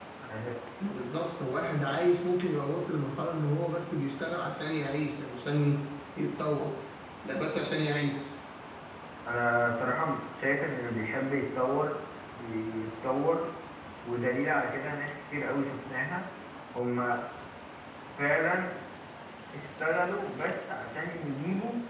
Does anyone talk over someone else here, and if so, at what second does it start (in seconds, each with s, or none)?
none